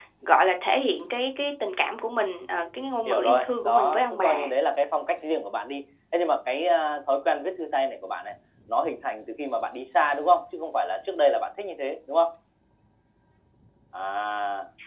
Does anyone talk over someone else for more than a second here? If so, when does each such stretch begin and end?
3.1-4.4

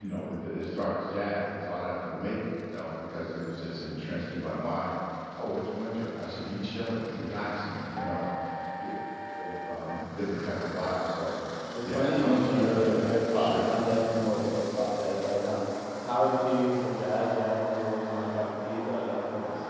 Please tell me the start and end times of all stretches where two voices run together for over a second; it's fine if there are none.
11.8-13.7

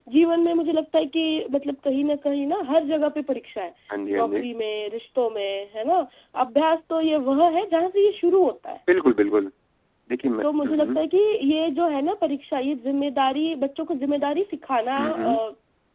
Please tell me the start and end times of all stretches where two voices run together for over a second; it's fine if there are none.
none

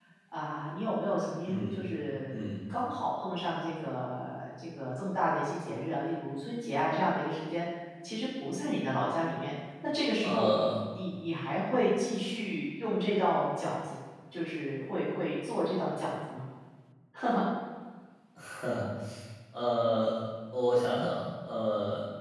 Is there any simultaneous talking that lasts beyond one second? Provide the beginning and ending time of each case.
none

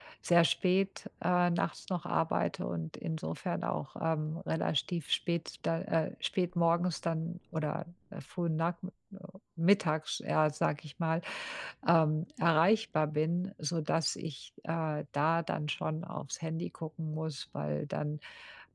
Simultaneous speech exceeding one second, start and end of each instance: none

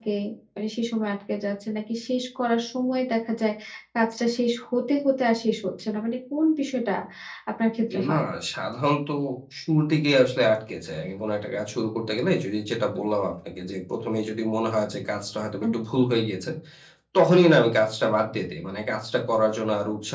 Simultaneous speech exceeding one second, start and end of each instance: none

